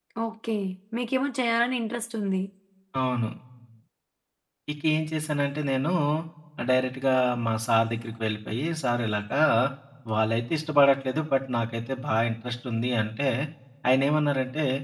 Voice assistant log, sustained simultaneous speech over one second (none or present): none